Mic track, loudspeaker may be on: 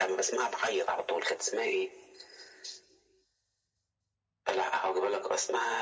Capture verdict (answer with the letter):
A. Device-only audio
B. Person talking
A